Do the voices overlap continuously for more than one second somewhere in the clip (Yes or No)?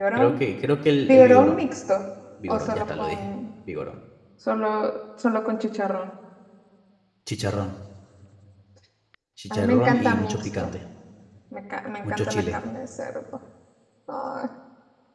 Yes